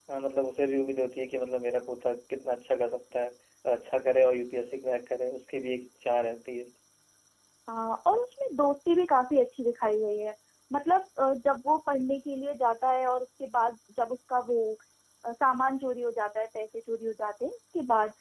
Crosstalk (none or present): none